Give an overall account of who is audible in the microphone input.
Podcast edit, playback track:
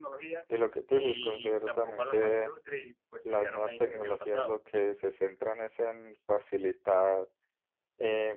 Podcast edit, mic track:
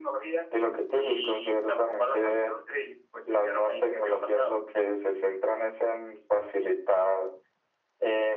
echo only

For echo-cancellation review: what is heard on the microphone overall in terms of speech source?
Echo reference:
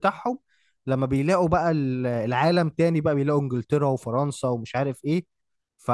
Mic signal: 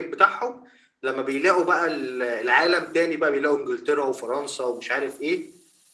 echo only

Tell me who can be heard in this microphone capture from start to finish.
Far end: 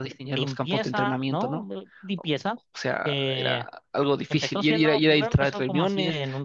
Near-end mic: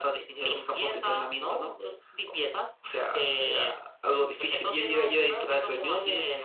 echo only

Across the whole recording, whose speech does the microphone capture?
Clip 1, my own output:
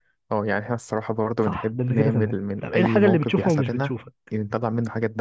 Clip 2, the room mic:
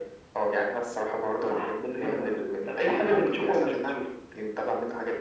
echo only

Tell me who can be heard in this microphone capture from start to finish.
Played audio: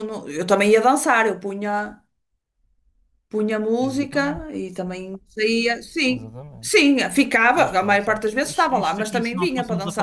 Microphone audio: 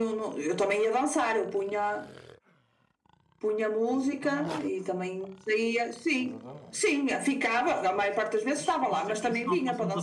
echo only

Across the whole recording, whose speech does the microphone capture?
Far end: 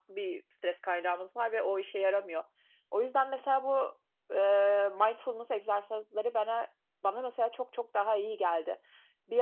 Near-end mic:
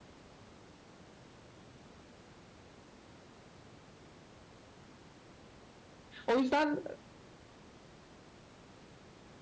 user only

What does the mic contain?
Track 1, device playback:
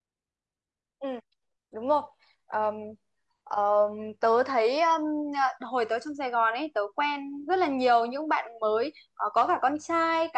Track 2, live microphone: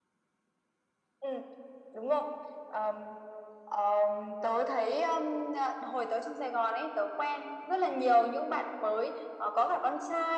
echo only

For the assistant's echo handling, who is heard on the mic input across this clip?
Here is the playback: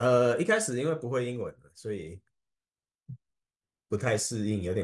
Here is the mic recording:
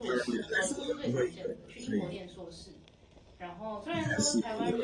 both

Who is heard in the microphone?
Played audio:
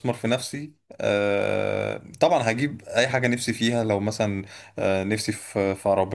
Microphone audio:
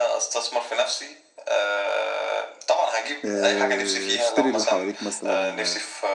both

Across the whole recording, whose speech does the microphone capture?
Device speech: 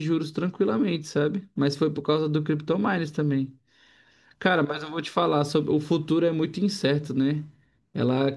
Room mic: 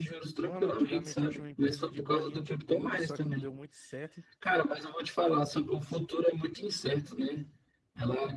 both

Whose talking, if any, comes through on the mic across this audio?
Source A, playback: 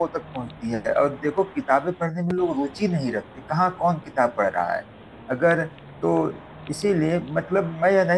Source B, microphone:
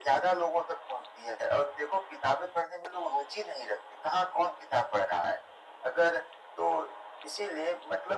echo only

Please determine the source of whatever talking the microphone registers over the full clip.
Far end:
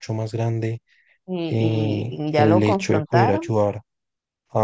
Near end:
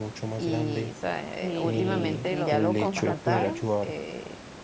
both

